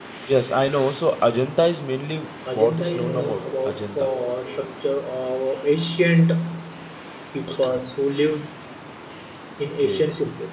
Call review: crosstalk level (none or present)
present